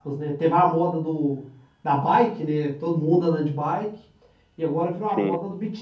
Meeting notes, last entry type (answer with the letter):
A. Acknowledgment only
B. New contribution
A